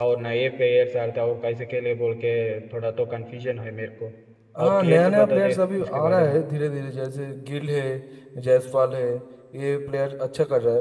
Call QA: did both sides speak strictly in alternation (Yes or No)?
No